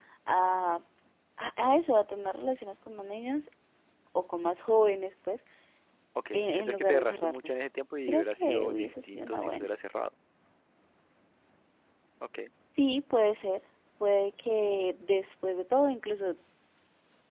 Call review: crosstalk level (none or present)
present